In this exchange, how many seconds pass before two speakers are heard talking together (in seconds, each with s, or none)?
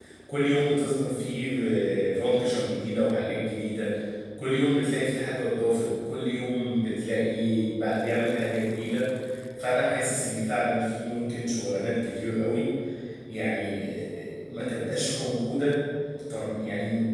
none